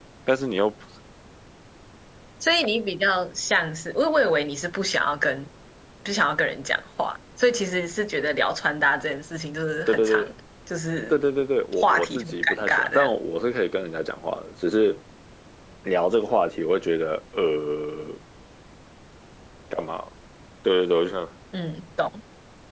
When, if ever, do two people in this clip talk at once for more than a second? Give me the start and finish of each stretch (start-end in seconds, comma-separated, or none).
11.8-13.1